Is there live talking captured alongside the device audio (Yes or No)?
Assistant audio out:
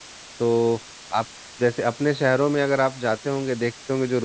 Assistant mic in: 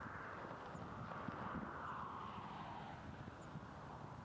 No